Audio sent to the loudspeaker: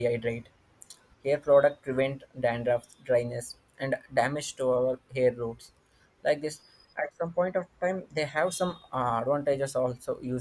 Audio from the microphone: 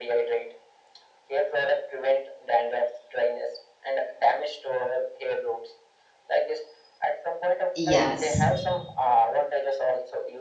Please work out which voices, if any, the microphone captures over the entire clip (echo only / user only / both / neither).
both